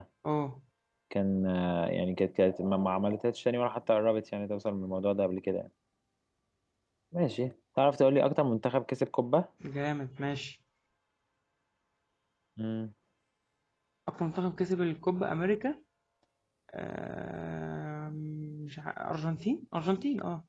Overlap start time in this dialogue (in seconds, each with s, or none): none